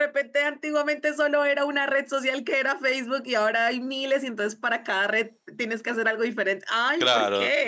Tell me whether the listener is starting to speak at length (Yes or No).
Yes